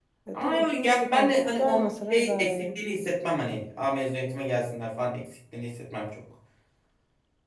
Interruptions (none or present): present